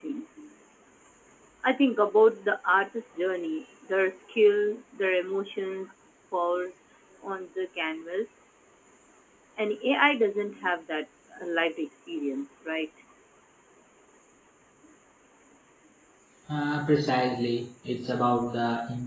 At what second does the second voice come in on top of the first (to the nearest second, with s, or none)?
none